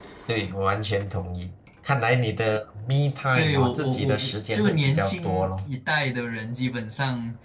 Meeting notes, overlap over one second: present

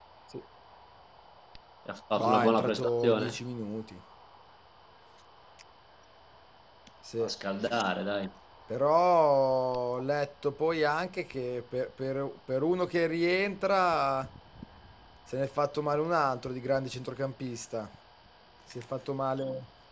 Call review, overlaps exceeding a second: present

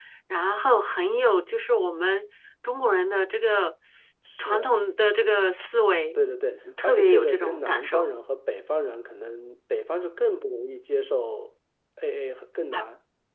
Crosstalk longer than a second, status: present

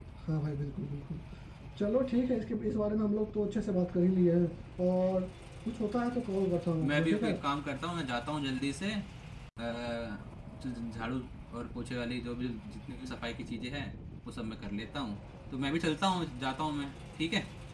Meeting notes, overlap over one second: none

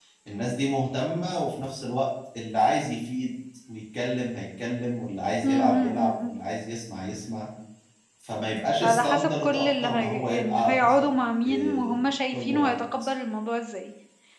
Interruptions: present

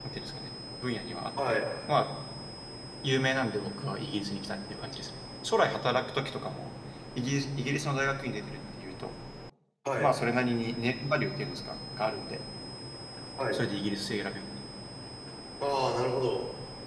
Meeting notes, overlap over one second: none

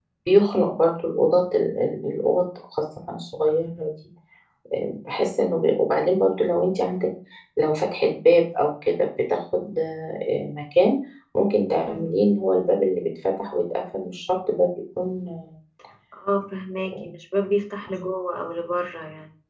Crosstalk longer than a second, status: none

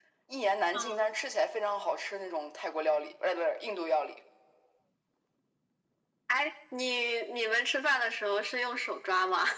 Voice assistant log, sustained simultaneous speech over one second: none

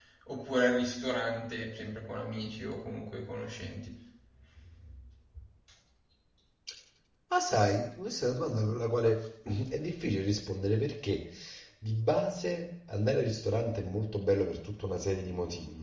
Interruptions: none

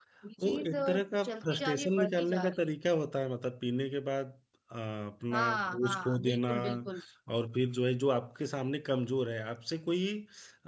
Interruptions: present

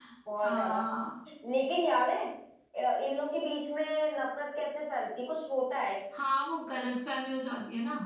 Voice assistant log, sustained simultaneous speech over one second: none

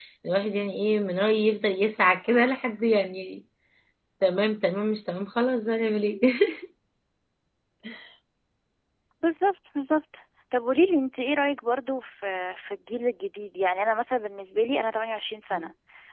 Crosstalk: none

